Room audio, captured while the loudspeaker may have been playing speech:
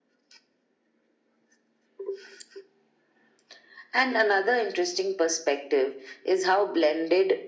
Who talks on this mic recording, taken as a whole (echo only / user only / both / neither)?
echo only